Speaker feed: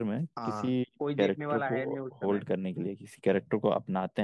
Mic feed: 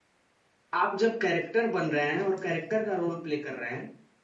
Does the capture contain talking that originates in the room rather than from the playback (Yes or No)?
Yes